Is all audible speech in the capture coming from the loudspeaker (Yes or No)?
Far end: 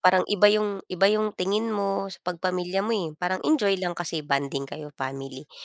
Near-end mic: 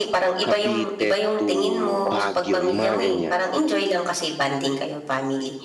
No